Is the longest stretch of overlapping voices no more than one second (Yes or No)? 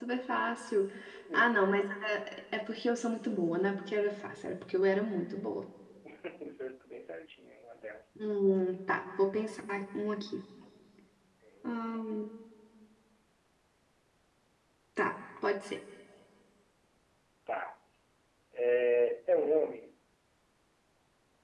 Yes